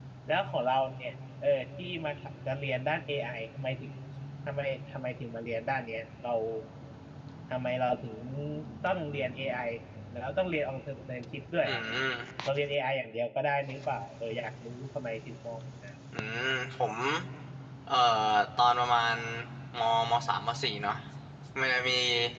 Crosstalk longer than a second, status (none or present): none